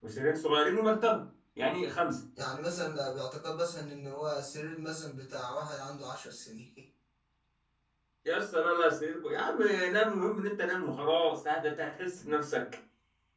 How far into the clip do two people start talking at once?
none

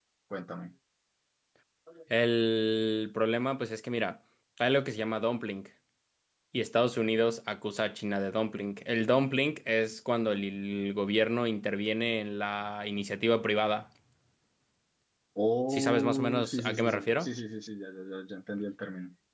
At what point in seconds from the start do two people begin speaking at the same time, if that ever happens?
15.7 s

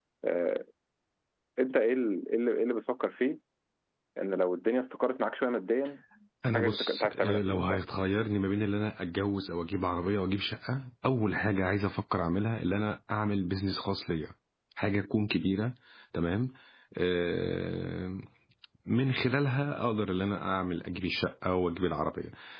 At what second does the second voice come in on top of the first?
6.5 s

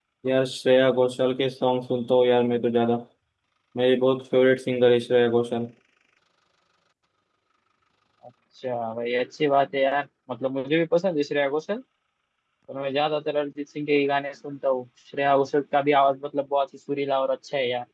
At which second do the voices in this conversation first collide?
none

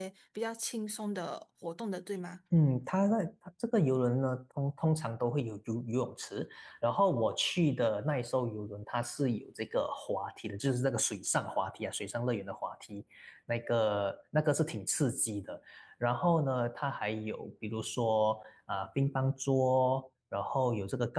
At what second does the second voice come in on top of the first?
none

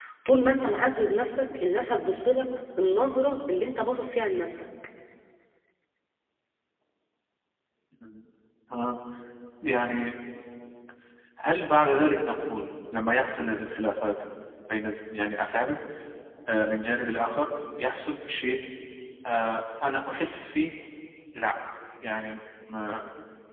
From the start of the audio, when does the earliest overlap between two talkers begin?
none

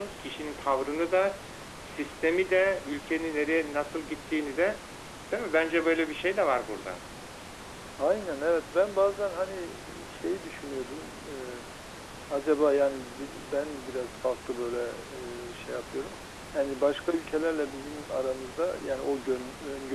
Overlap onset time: none

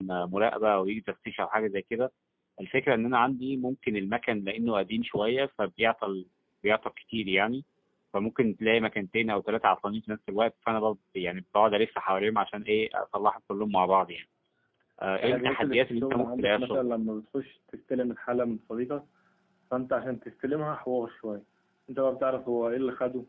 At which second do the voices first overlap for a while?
15.2 s

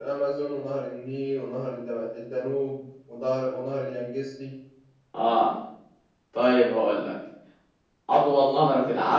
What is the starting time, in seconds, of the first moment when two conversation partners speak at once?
none

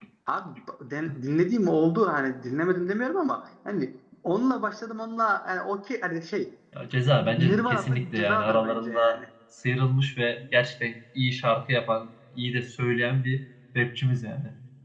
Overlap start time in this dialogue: 7.2 s

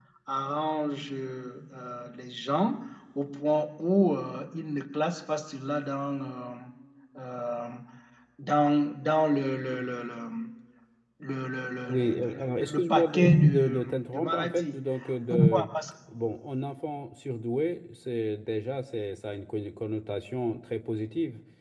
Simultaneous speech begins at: 11.9 s

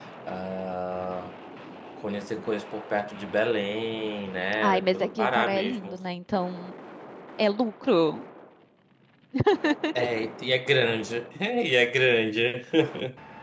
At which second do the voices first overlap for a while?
4.6 s

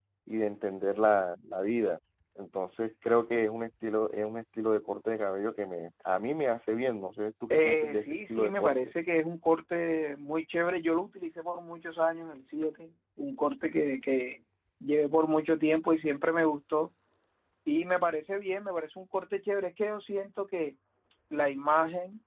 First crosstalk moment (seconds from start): 7.5 s

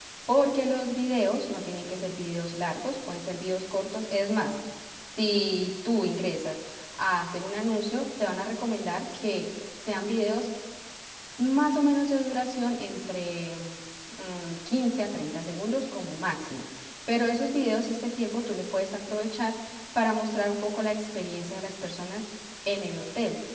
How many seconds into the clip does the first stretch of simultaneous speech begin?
none

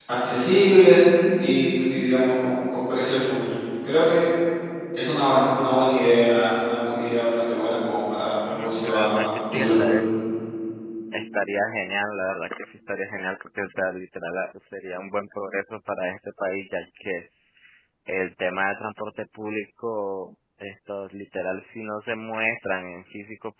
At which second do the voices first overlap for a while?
8.5 s

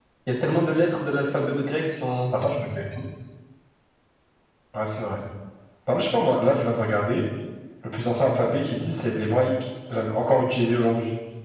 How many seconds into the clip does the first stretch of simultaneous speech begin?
none

